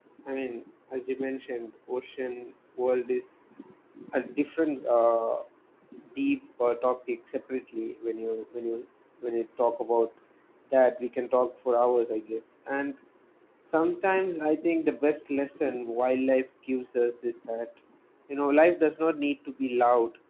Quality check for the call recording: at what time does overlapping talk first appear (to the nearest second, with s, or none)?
none